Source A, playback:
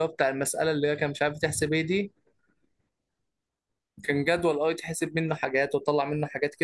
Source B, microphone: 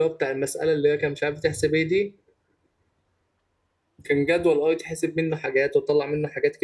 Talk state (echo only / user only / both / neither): echo only